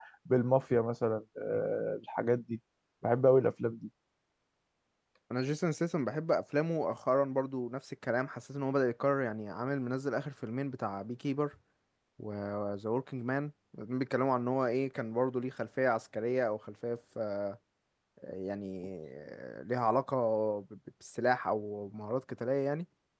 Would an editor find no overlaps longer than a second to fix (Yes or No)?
Yes